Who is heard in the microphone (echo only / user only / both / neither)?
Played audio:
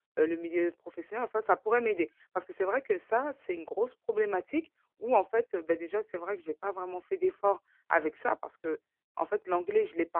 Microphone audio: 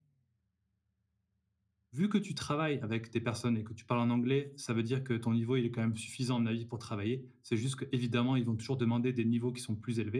user only